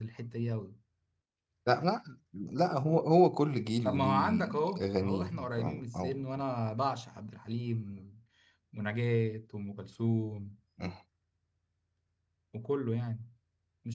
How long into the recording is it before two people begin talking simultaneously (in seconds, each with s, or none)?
3.8 s